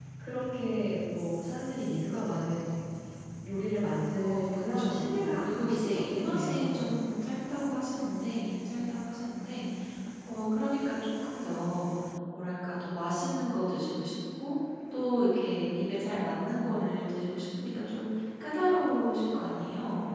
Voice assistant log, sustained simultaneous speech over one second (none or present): present